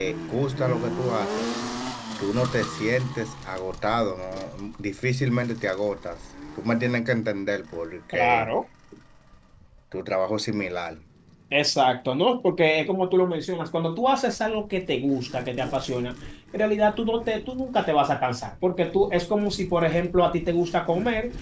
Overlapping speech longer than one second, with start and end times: none

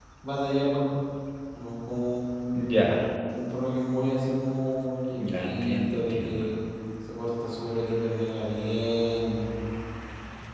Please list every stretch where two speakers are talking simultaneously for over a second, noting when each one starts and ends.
5.2-6.5

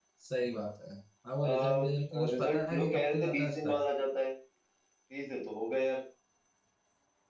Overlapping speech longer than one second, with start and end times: 2.3-3.7

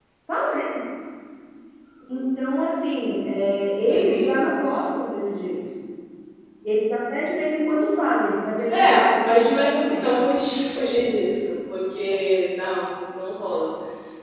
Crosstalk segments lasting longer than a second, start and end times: 8.7-10.2

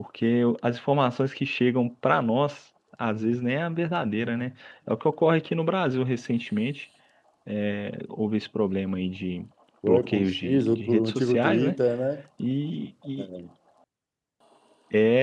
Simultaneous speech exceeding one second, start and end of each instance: 9.8-11.8

